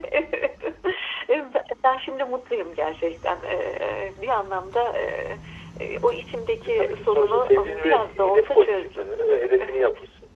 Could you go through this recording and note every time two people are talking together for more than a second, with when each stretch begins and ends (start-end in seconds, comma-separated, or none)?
6.6-9.7